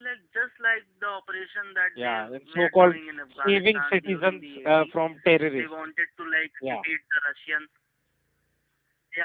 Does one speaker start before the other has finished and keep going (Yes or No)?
Yes